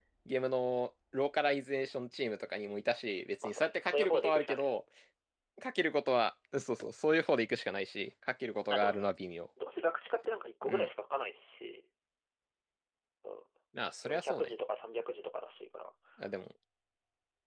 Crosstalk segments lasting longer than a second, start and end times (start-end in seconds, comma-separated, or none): 3.4-4.7